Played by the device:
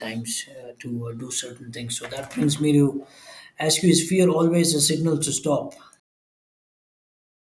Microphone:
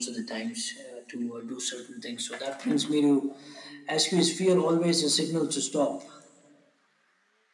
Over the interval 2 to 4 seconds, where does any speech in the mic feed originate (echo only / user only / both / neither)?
echo only